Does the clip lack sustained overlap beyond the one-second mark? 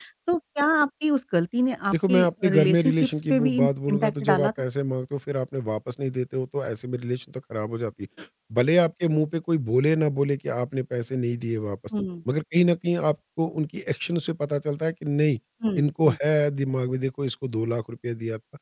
No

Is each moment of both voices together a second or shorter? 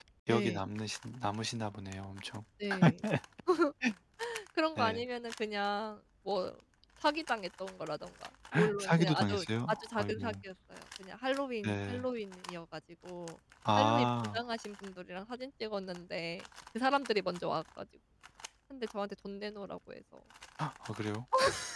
No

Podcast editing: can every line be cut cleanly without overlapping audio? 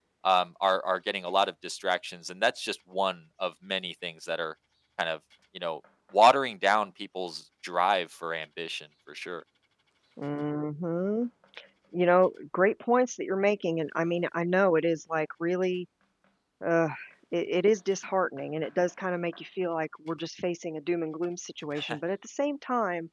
Yes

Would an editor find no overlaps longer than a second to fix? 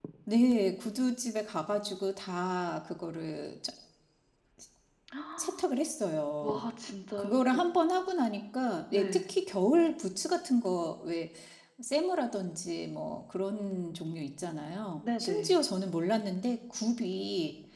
Yes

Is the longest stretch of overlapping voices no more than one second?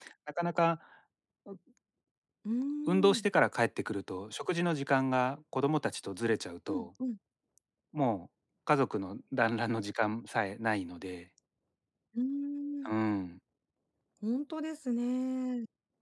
Yes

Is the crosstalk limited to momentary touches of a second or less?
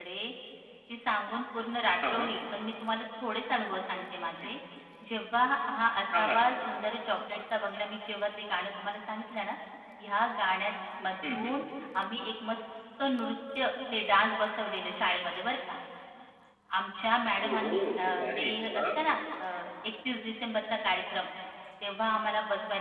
No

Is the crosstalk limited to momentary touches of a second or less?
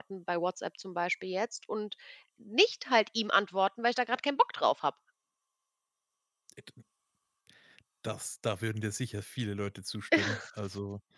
Yes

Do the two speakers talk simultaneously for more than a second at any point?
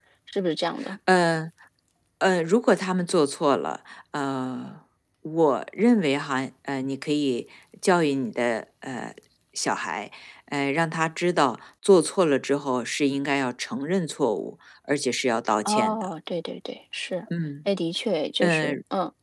No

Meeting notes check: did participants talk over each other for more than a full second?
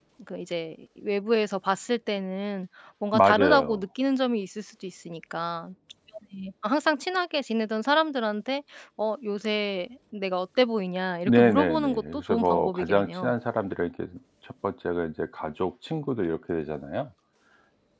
Yes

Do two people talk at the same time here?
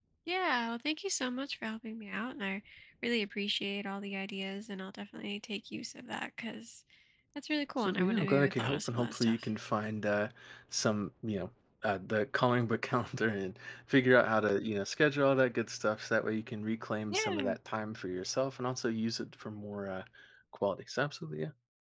Yes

